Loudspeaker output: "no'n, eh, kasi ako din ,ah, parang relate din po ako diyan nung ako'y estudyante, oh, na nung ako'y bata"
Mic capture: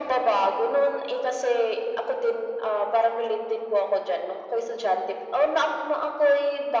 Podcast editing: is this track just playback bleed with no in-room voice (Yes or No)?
Yes